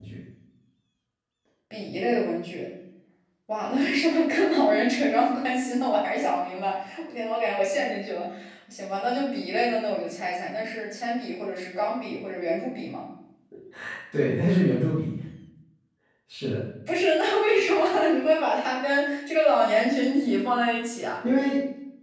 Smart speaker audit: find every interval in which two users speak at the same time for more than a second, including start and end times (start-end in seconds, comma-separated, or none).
none